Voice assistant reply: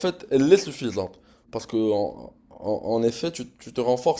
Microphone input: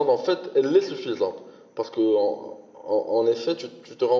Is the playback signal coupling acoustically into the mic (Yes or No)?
Yes